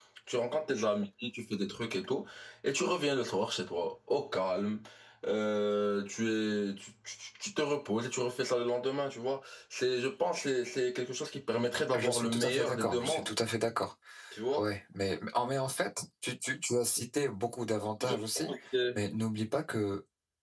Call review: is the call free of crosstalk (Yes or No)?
No